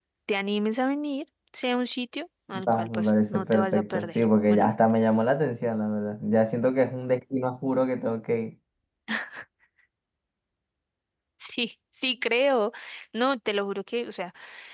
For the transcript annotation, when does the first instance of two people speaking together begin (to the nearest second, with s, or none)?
3 s